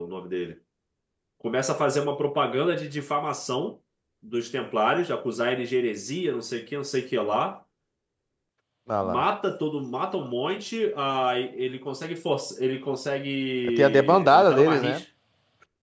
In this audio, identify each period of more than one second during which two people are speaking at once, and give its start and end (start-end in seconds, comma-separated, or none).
13.8-15.0